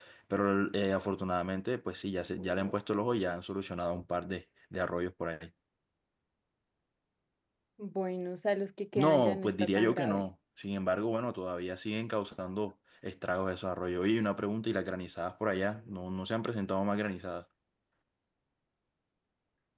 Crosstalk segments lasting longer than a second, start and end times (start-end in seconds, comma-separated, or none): 9.0-10.3